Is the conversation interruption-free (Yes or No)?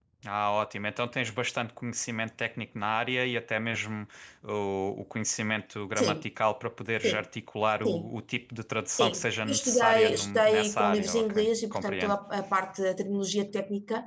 No